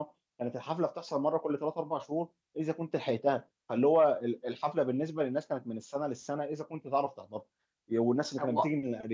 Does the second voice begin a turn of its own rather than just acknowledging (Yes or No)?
No